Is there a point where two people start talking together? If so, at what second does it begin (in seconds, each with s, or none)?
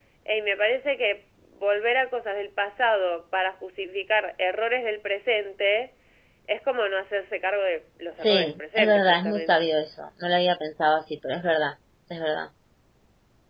8.2 s